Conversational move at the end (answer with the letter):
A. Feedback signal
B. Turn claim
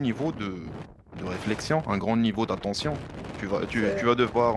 A